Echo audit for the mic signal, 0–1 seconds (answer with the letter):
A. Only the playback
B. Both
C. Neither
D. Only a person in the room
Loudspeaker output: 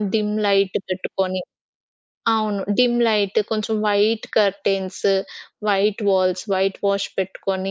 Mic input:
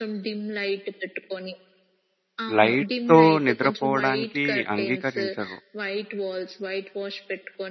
A